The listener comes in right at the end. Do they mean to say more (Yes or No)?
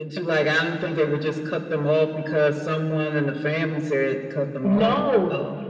Yes